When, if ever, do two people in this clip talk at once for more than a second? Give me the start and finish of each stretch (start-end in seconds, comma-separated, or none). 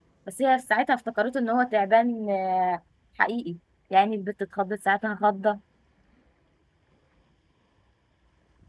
none